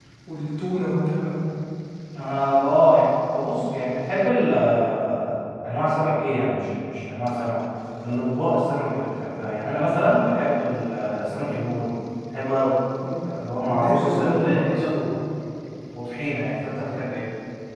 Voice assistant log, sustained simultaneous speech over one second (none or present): present